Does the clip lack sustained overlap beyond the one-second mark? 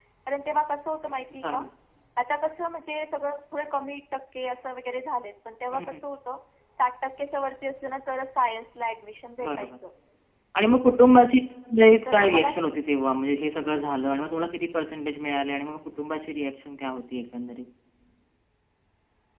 Yes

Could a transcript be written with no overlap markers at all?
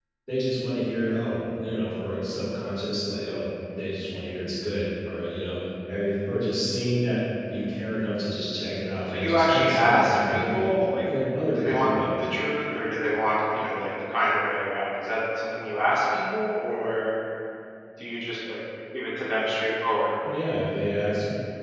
No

